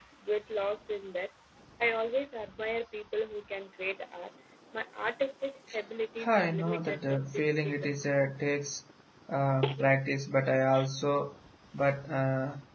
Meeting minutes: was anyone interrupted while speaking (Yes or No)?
Yes